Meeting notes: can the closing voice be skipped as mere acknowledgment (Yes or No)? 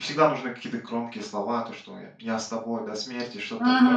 Yes